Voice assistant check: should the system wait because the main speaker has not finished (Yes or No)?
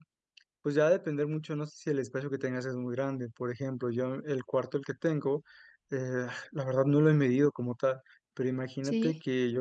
Yes